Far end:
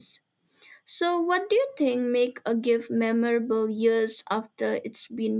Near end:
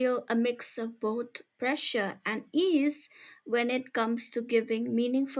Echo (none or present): none